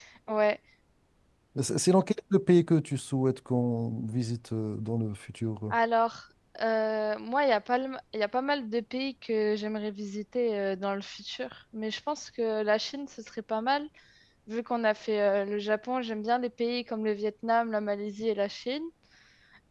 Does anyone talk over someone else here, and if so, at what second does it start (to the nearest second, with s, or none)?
none